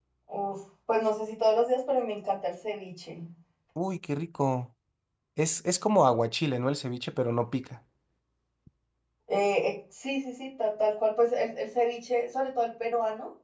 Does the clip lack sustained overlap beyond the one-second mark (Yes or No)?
Yes